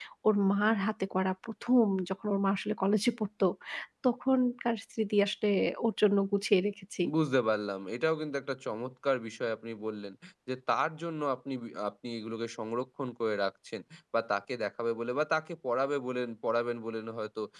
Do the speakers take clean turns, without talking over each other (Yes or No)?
Yes